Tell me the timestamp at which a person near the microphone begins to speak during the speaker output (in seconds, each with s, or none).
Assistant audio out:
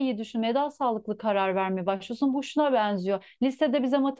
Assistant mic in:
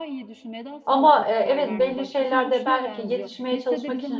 0.8 s